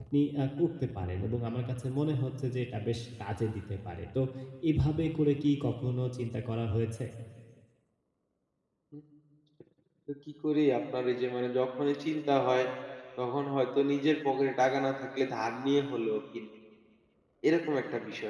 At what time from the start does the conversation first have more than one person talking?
none

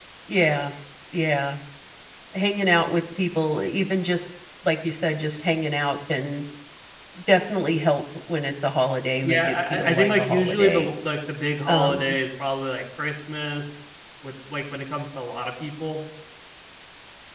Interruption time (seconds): 9.2 s

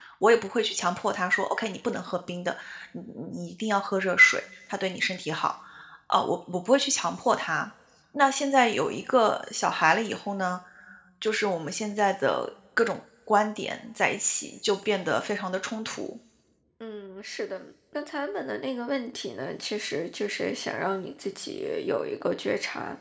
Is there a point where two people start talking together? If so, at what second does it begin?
none

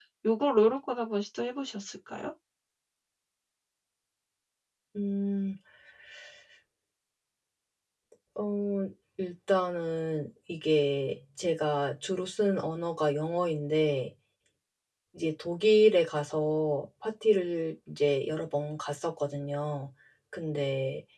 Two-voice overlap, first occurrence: none

